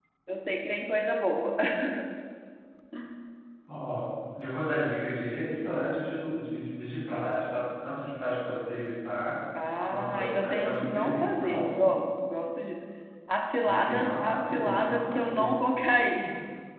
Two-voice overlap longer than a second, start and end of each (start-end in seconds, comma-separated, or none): 9.9-11.8, 13.6-15.6